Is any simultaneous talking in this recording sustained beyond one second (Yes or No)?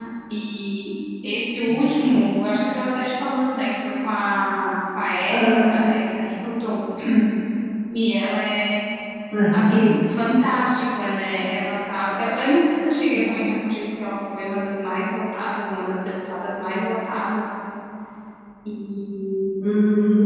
No